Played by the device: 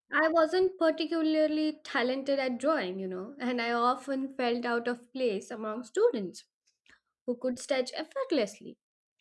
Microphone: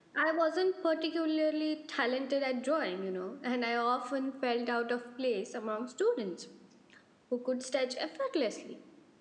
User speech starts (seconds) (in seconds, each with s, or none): none